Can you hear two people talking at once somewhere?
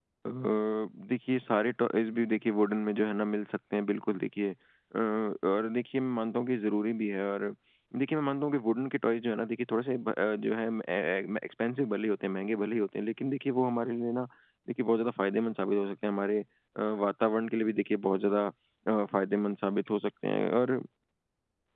No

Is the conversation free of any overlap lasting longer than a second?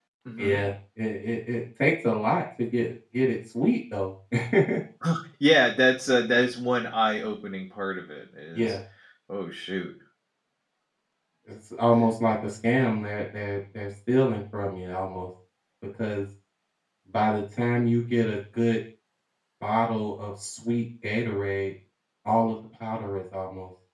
Yes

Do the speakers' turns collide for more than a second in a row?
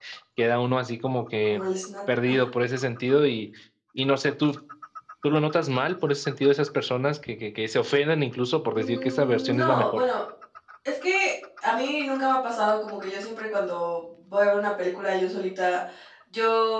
Yes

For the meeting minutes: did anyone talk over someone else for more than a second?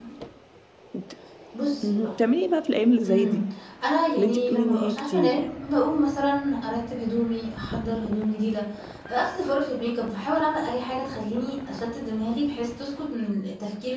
Yes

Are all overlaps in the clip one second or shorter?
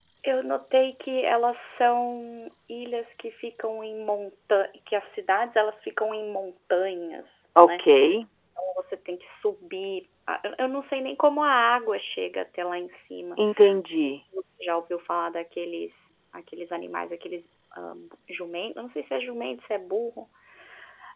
Yes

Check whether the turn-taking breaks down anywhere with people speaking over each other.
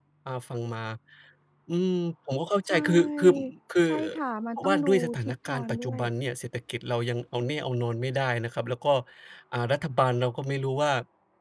Yes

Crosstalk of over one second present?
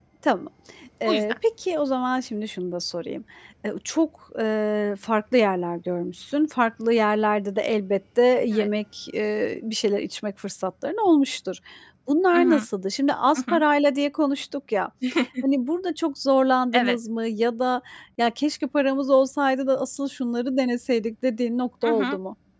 No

